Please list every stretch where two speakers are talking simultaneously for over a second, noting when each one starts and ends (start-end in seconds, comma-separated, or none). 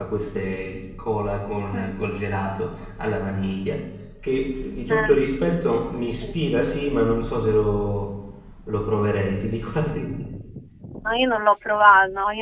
none